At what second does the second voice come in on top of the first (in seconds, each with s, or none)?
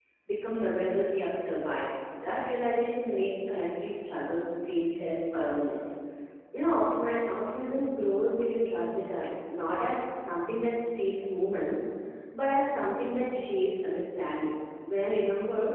none